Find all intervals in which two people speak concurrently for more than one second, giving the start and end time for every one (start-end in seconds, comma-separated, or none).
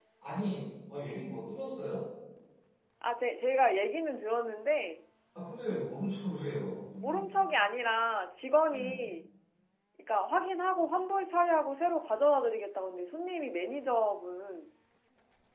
none